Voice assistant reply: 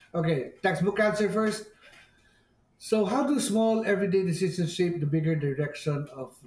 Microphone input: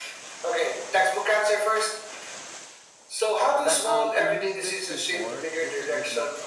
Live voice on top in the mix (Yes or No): No